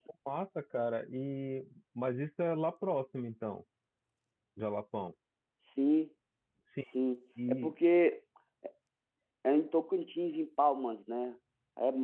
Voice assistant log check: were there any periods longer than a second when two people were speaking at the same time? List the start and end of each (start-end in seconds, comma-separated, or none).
none